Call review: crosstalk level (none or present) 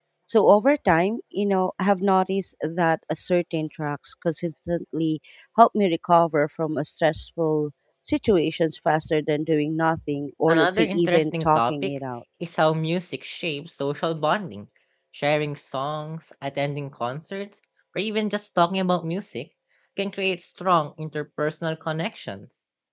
present